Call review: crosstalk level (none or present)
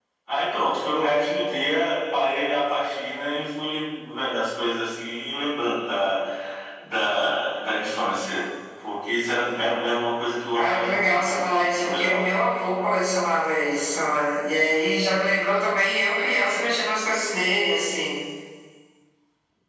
present